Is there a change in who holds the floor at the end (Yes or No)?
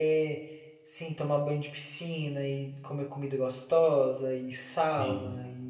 No